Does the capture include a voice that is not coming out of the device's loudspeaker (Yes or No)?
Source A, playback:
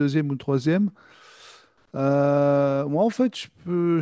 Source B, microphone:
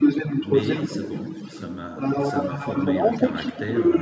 Yes